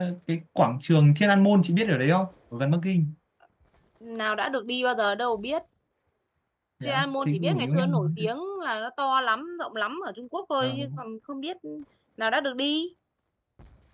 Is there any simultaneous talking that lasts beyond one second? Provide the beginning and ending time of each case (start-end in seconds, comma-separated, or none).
6.8-8.2